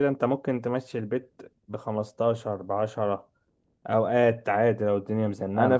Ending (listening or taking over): taking over